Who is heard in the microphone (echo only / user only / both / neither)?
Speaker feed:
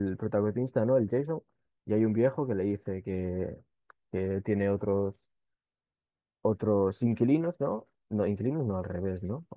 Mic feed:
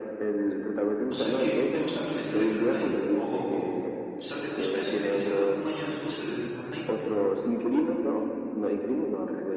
both